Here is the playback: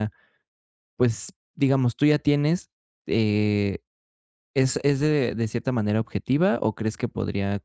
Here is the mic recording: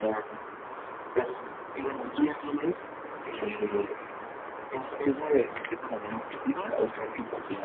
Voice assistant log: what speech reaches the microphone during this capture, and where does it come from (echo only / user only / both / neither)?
echo only